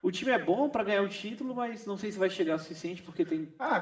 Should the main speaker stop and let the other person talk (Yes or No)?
Yes